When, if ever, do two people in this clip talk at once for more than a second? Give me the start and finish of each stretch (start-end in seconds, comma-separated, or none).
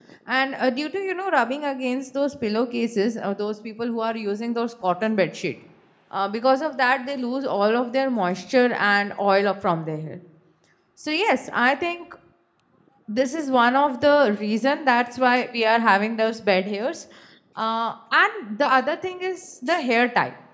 none